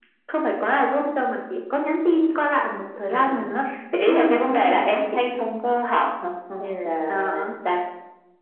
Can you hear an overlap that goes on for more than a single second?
Yes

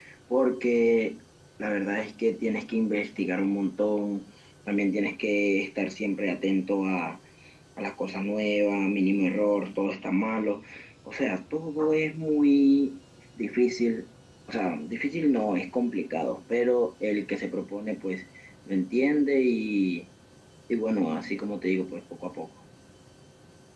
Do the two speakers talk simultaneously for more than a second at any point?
No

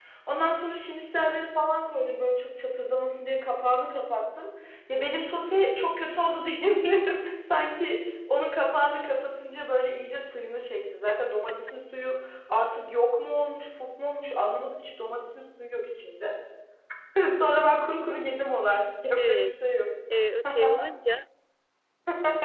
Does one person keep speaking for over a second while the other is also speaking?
No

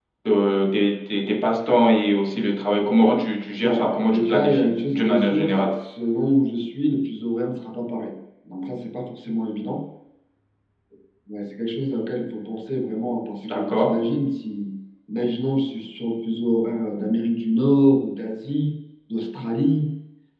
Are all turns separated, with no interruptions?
No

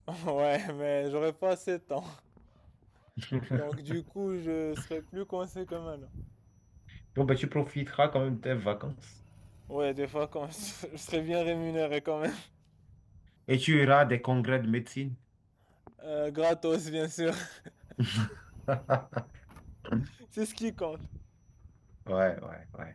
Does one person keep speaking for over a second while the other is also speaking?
No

